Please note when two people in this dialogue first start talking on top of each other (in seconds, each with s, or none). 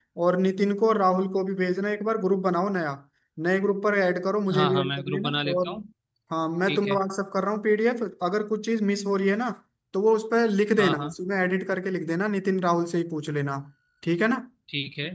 4.5 s